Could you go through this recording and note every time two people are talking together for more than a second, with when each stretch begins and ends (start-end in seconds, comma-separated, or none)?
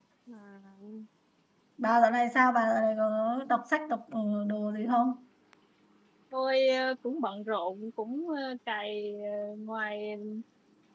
none